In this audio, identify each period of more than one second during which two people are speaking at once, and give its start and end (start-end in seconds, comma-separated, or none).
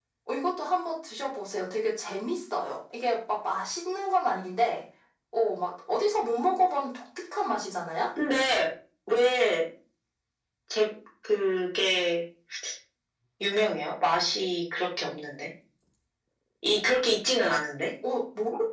none